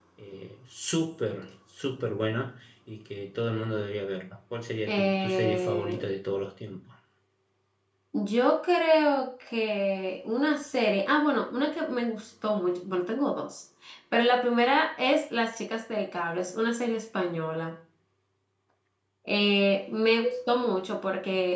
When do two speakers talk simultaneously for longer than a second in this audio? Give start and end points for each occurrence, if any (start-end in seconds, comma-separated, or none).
4.9-6.1